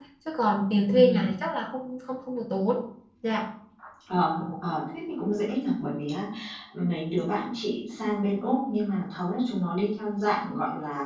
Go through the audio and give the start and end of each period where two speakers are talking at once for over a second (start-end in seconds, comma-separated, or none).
none